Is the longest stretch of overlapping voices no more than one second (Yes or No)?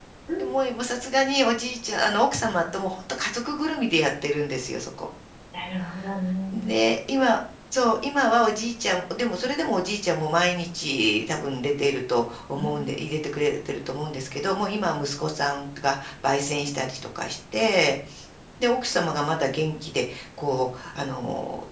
Yes